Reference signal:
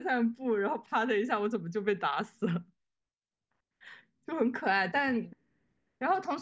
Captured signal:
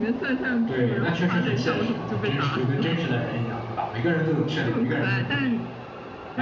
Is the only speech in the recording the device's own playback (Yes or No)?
No